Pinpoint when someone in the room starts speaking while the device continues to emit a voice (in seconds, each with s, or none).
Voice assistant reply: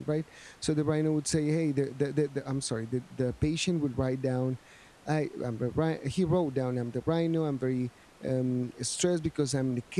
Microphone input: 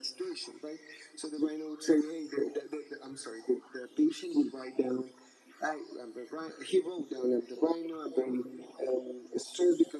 none